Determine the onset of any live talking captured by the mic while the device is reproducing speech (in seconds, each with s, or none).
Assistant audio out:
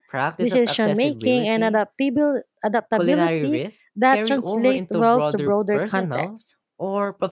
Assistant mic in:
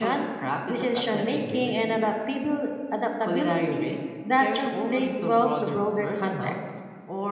none